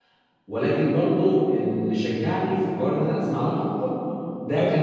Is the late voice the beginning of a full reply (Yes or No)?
No